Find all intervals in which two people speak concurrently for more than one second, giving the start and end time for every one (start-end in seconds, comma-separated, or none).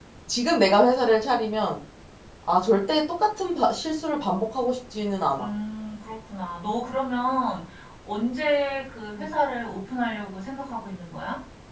none